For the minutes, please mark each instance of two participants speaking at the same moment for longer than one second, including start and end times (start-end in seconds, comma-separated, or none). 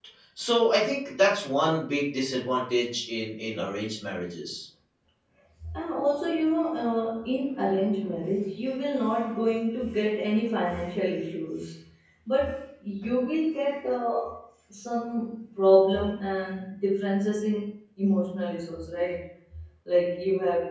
none